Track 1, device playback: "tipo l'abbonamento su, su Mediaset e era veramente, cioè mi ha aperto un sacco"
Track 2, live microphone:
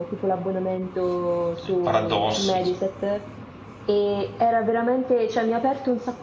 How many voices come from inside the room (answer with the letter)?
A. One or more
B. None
A